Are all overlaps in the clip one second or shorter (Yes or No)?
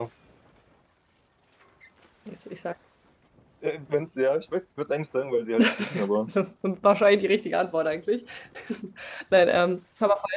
Yes